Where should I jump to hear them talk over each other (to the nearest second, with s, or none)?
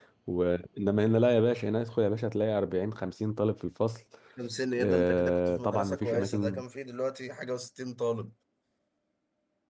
5 s